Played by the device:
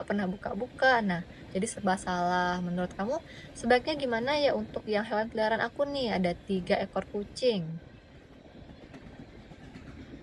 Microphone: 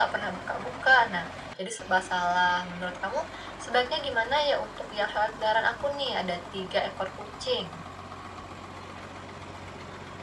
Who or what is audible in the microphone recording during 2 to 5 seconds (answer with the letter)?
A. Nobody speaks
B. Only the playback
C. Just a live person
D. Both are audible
B